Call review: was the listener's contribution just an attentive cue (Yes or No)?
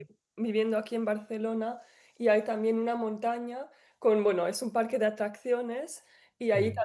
Yes